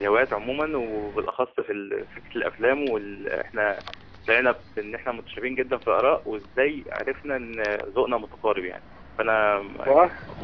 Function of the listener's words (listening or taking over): taking over